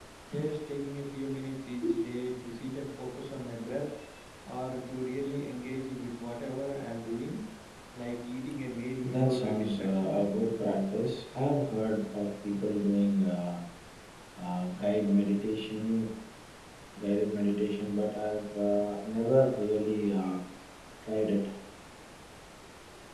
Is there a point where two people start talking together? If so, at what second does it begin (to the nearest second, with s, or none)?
9 s